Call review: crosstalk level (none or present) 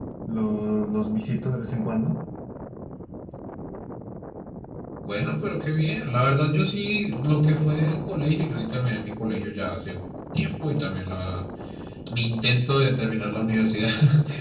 none